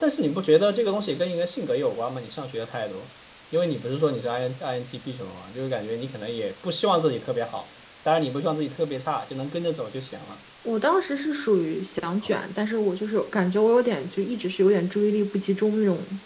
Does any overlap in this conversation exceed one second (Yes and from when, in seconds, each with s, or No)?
No